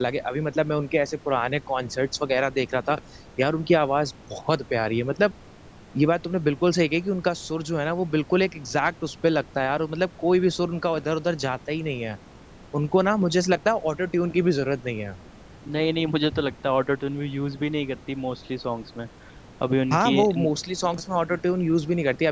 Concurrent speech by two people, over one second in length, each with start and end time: none

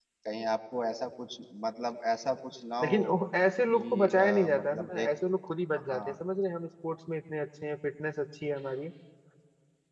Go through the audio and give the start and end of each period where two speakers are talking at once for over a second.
3.7-5.1

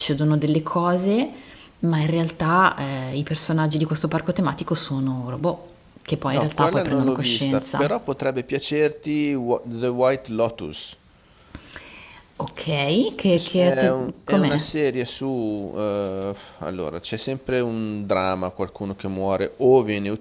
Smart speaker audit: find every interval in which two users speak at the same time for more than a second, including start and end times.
6.3-7.9, 13.3-14.6

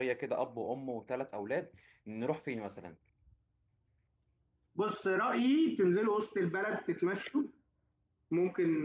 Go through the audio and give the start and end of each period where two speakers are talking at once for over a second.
none

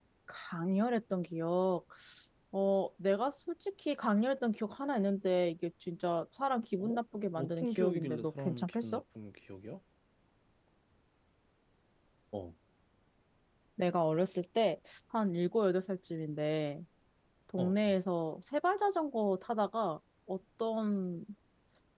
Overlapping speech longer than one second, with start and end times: 7.3-9.0

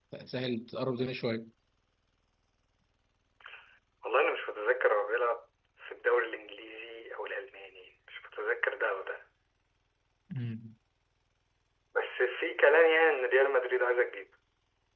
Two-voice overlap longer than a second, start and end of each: none

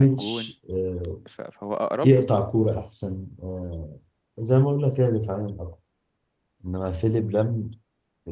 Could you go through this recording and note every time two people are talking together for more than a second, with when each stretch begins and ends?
none

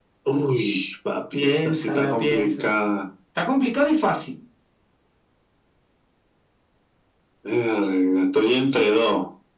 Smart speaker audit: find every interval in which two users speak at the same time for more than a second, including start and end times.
1.3-2.7

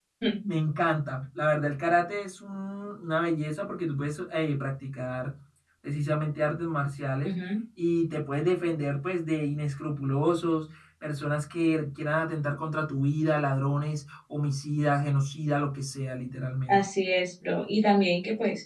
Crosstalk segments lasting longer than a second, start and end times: none

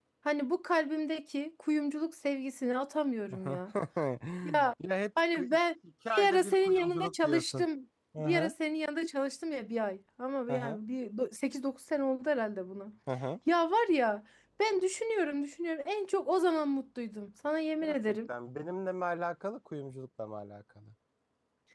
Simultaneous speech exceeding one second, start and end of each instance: 6.1-7.6

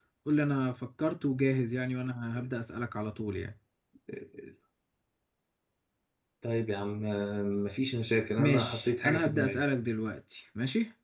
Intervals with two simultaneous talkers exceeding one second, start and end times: 8.4-9.6

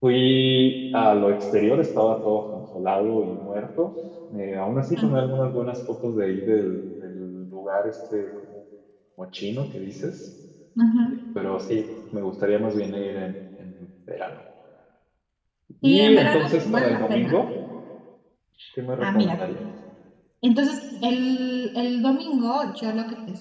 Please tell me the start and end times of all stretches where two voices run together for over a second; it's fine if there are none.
15.8-17.4

